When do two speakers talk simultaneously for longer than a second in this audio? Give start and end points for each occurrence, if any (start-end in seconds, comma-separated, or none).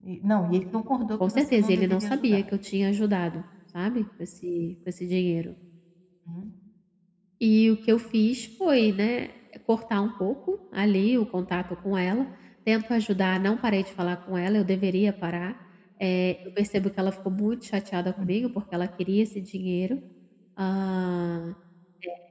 1.3-2.5